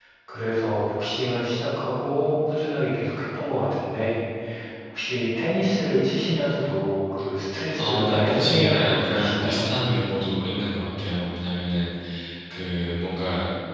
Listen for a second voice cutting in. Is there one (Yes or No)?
Yes